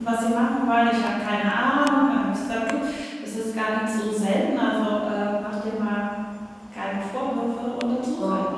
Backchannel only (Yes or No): No